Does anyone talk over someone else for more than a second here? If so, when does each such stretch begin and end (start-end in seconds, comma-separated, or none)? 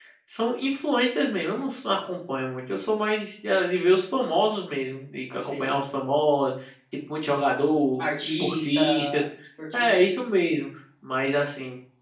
8.0-9.2